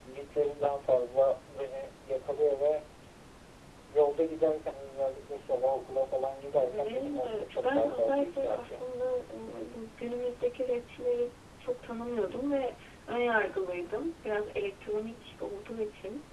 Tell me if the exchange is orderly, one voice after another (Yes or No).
No